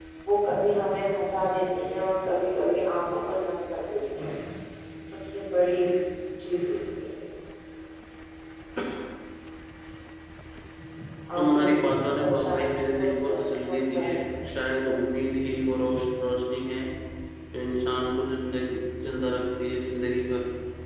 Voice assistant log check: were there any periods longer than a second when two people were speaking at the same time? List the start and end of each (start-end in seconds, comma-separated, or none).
11.4-14.2